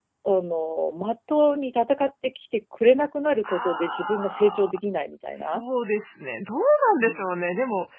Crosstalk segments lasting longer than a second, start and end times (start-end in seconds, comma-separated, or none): 3.4-4.7